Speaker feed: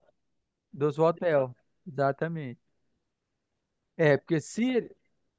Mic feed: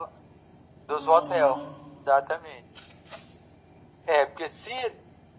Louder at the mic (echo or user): echo